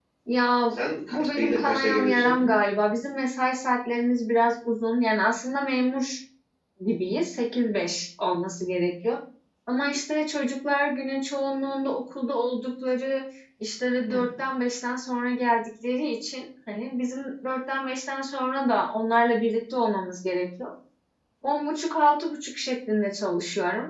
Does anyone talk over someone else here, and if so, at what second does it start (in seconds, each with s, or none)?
1.1 s